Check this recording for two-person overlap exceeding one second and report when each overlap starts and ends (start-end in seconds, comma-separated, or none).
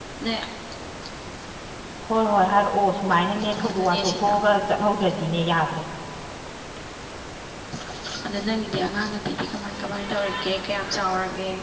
3.7-5.1